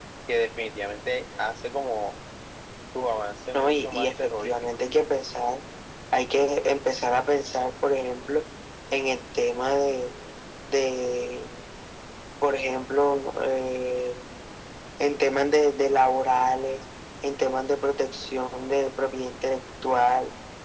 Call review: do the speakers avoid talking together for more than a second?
No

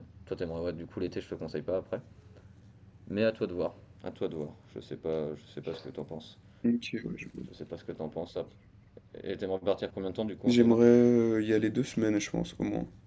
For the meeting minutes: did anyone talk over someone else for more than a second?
No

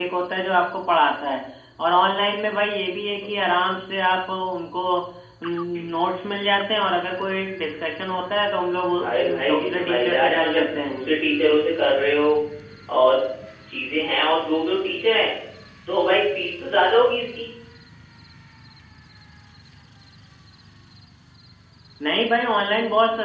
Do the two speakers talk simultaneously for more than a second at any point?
Yes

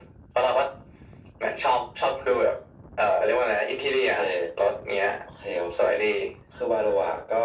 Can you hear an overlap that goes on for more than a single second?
No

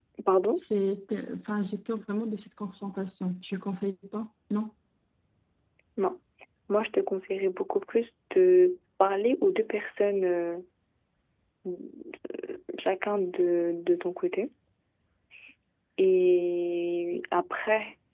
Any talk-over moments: No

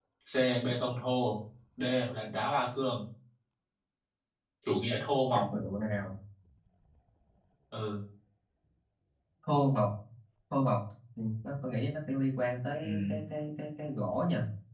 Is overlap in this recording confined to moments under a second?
Yes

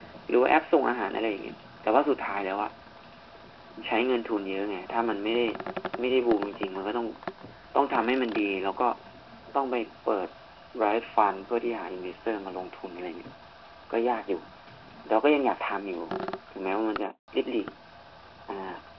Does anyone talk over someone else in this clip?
No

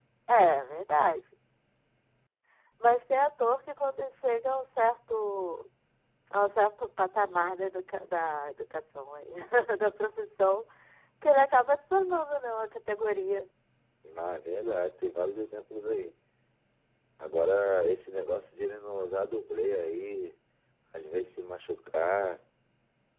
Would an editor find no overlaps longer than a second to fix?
Yes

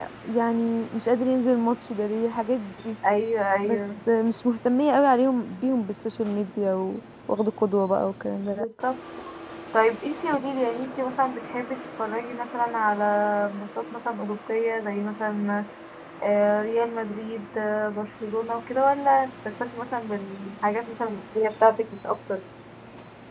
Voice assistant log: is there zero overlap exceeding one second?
Yes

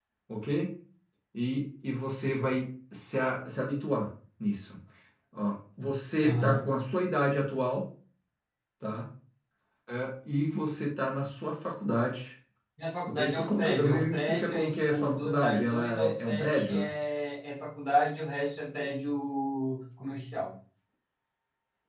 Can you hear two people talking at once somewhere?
Yes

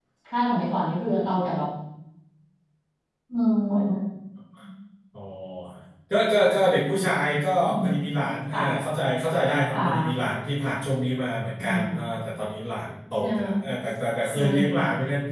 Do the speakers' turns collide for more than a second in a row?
No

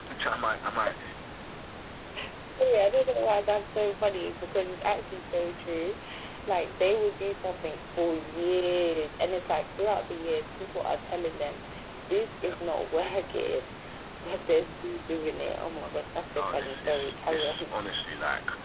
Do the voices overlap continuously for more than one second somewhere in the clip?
Yes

